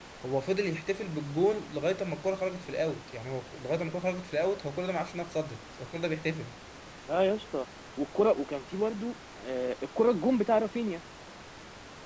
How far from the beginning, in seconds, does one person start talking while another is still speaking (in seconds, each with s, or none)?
none